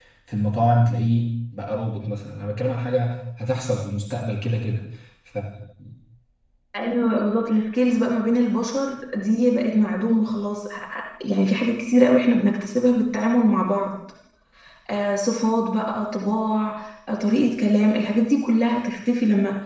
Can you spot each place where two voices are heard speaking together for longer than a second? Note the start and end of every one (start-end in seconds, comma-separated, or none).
none